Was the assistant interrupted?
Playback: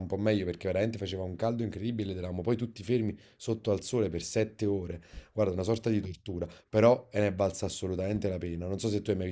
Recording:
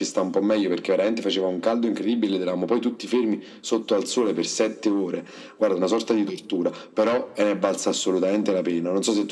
No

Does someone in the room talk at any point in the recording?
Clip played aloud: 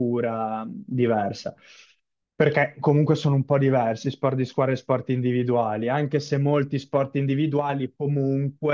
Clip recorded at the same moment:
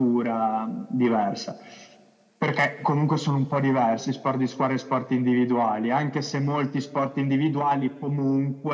No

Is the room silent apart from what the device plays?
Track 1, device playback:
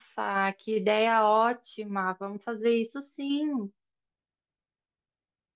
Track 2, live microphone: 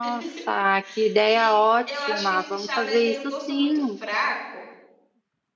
No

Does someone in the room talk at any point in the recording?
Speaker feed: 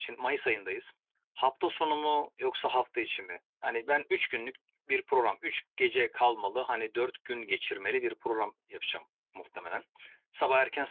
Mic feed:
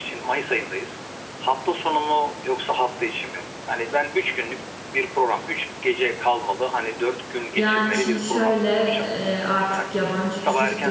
Yes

